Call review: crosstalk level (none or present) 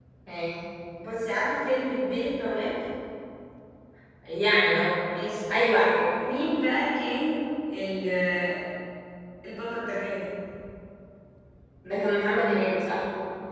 none